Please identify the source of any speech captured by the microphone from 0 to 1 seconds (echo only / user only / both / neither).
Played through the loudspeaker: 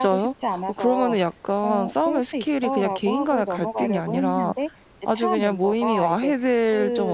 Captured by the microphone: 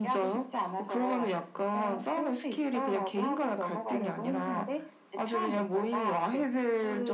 echo only